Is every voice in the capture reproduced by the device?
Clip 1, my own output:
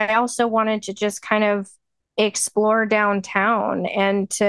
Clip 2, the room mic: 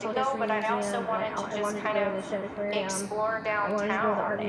No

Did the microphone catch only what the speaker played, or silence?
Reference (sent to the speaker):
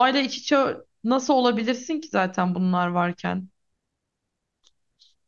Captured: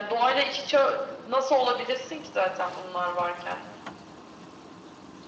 Yes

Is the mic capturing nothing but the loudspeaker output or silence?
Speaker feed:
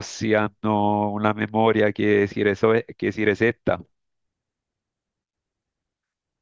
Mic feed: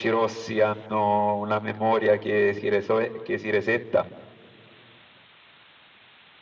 Yes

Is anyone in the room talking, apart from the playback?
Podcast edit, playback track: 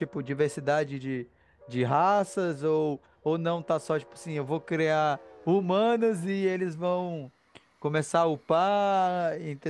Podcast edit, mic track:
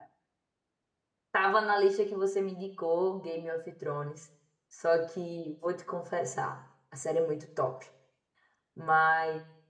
Yes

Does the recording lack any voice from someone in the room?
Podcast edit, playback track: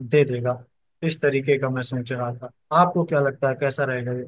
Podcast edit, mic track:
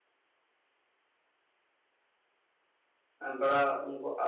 No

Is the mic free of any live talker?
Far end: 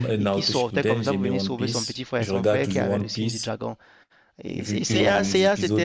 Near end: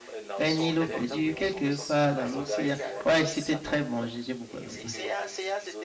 No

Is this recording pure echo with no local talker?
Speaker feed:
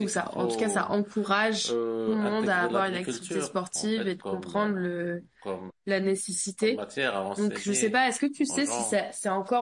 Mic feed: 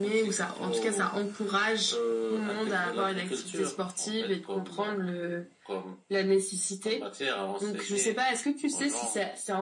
Yes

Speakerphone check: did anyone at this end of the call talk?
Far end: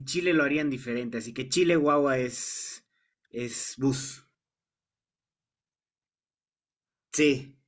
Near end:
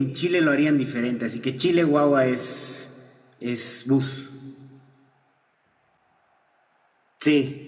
No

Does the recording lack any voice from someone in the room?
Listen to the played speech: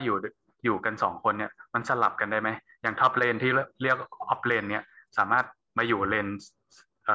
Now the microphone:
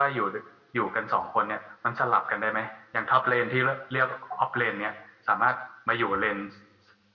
Yes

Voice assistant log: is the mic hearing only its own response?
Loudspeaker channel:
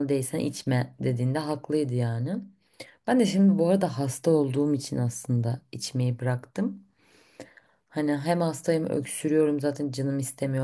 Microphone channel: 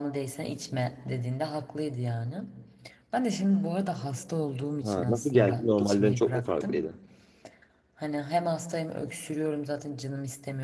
No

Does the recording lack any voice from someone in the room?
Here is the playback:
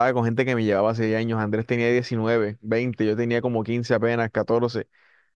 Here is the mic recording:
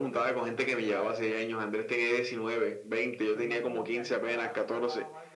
No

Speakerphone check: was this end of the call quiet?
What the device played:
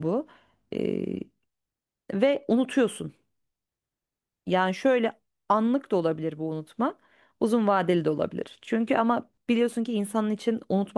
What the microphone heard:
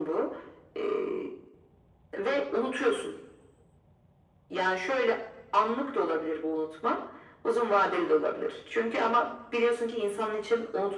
Yes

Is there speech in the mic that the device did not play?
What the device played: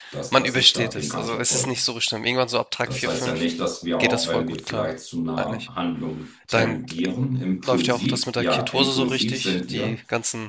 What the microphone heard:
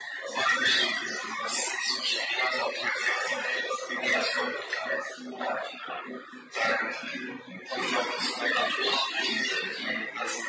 No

